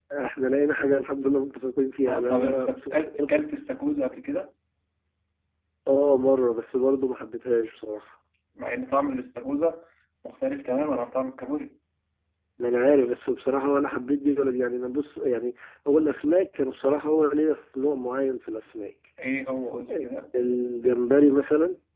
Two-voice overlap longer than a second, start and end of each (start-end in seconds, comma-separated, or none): 2.1-3.4